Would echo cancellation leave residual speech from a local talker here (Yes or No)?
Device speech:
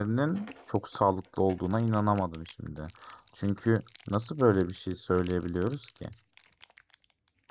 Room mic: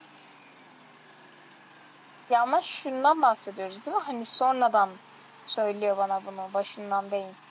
Yes